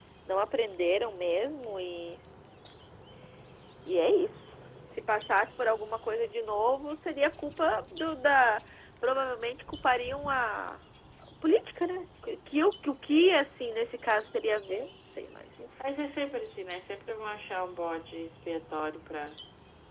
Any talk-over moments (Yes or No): No